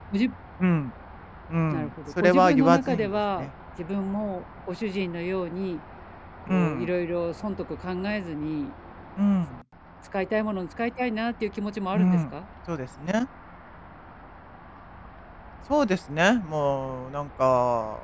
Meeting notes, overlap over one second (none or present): present